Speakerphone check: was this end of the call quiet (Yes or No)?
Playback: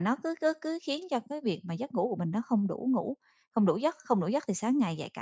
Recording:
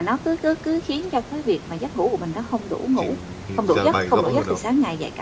No